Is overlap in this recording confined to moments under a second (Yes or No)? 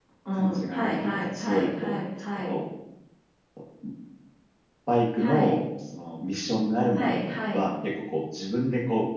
No